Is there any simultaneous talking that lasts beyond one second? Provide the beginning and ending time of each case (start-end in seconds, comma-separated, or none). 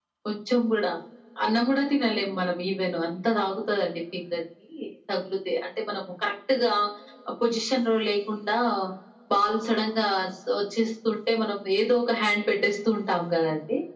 none